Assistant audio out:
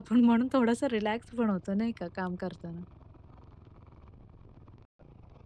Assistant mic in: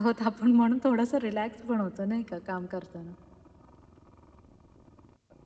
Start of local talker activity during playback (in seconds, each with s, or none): none